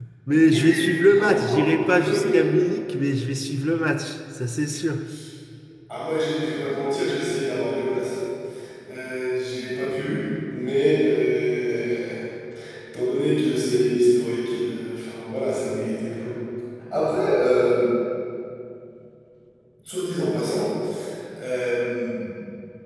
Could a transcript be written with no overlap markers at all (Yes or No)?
No